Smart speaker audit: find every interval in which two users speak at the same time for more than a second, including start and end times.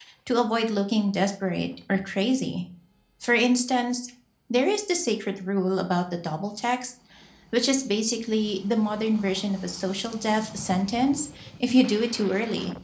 none

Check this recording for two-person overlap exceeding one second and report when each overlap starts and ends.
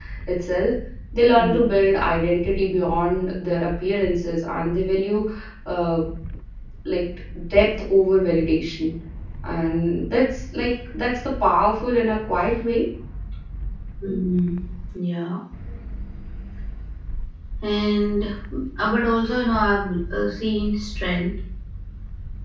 none

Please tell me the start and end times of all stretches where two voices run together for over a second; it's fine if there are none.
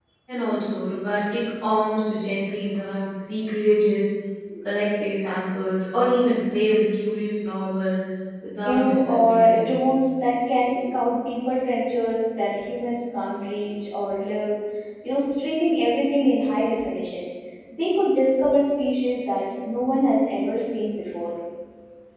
8.6-9.9

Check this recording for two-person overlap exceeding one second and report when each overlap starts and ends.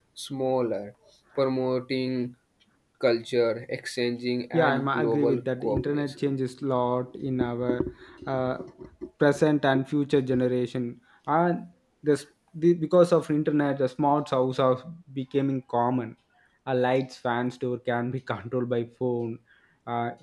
4.5-6.1

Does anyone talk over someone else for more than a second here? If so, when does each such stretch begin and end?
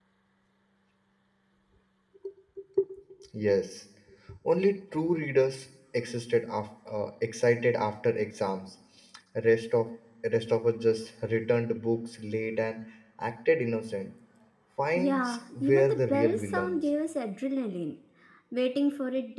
14.9-16.8

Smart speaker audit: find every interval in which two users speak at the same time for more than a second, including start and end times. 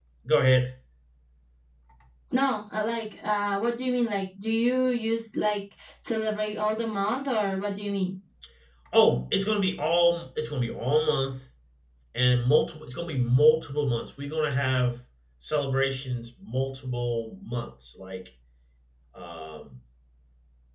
none

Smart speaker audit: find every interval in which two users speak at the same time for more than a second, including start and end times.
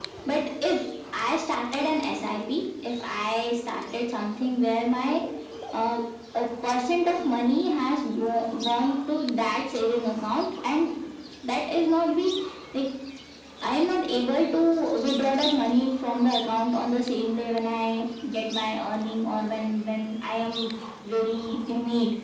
none

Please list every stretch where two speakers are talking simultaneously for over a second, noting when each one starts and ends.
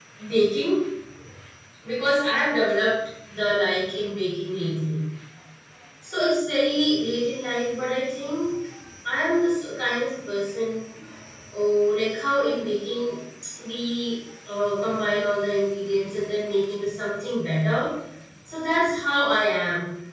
none

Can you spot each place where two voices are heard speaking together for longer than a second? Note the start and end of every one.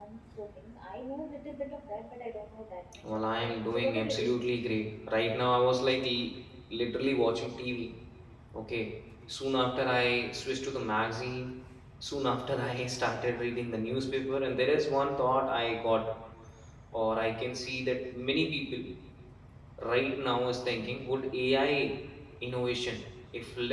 3.0-4.4

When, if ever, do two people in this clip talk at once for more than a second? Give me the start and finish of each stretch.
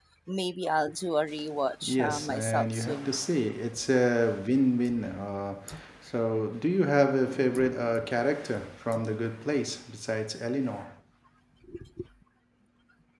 1.9-3.1

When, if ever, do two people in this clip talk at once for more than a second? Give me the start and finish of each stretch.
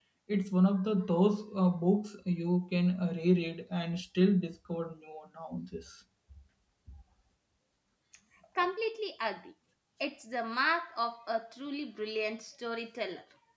none

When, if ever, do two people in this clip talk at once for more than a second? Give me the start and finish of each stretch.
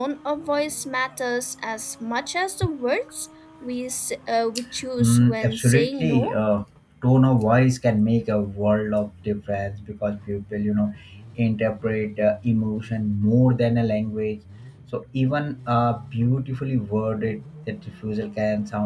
5.0-6.4

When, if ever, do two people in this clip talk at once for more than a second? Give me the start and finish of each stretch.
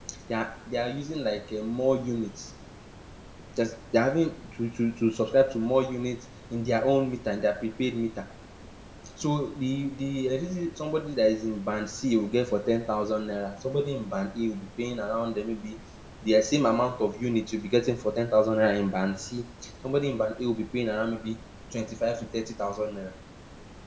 none

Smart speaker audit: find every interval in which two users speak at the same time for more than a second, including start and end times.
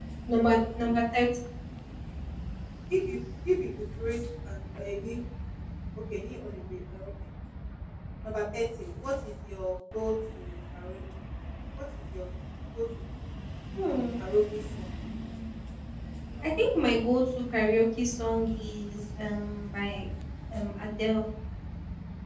none

